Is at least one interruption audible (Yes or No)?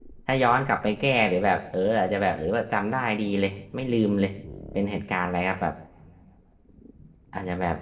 No